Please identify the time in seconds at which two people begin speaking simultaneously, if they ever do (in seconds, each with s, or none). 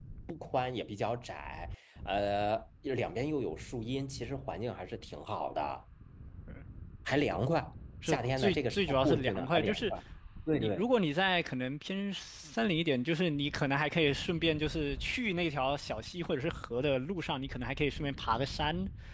8.1 s